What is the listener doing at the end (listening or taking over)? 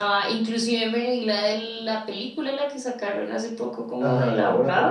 taking over